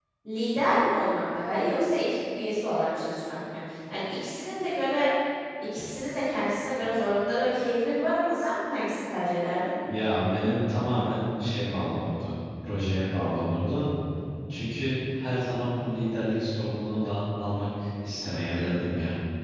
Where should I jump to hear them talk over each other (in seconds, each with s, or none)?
none